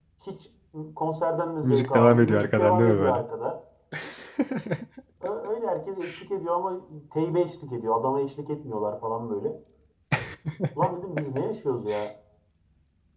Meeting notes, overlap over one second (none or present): present